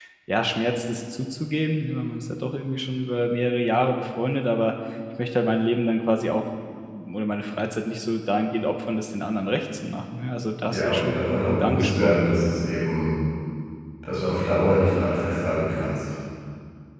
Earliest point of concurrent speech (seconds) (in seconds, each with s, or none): 10.7 s